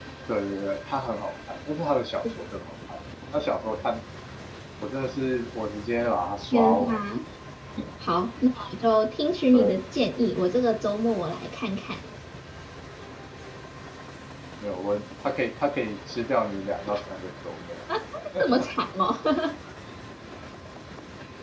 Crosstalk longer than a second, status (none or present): none